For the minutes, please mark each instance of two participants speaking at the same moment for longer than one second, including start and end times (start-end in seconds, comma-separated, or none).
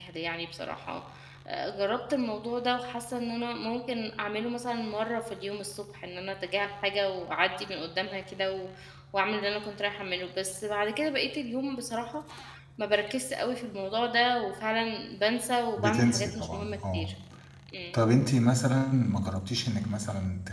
15.8-17.1